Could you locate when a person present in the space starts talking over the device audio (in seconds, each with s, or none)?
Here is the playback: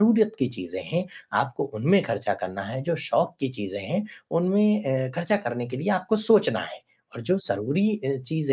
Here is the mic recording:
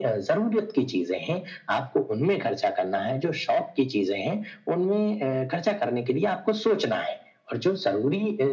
none